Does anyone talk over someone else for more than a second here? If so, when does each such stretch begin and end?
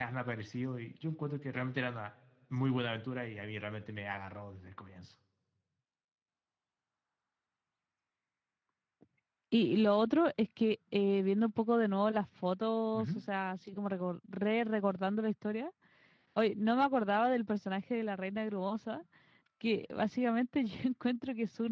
none

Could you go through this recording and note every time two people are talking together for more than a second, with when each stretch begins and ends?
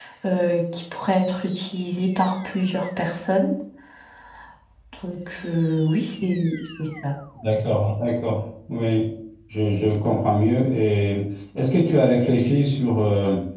none

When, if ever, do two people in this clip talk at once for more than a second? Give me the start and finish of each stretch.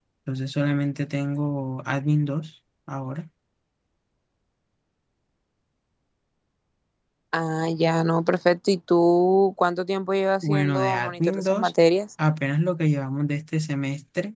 10.4-11.7

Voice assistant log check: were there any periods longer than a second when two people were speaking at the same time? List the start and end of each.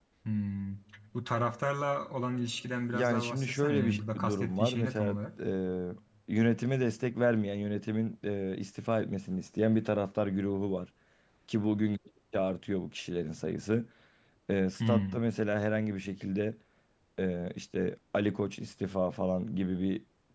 2.9-5.2

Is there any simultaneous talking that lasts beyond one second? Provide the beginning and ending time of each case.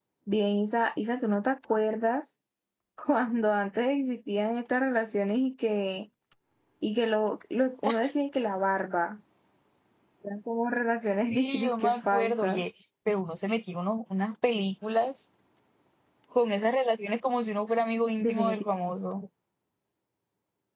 11.3-12.6

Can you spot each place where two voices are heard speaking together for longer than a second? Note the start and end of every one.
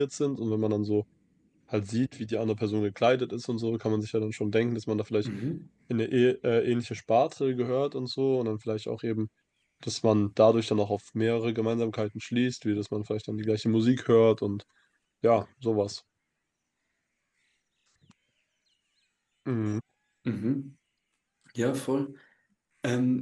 none

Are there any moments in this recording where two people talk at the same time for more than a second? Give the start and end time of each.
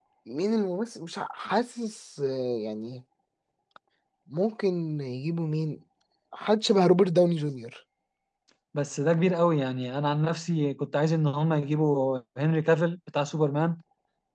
none

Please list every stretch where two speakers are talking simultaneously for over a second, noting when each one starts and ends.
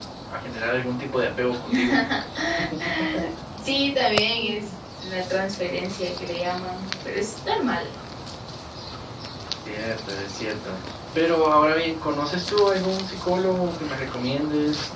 none

